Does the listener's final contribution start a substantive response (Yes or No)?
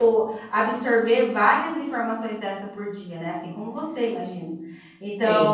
No